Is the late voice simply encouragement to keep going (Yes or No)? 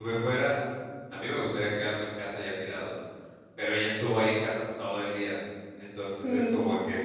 Yes